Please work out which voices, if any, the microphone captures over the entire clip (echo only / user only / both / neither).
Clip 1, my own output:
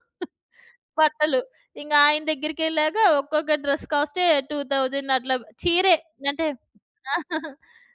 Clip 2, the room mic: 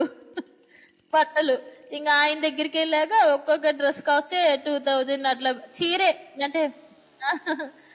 echo only